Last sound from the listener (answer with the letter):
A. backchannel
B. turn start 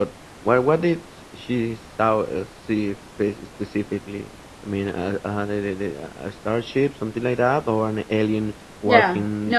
B